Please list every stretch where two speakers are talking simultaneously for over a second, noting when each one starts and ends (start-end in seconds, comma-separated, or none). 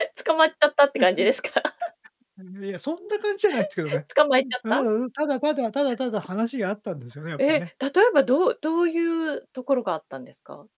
none